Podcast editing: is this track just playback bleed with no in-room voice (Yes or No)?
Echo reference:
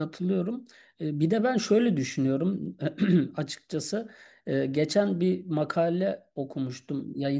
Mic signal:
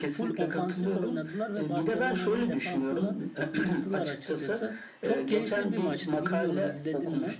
No